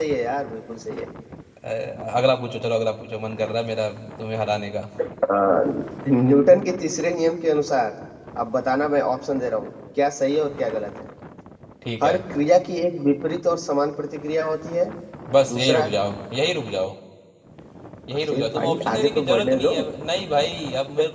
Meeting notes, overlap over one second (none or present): present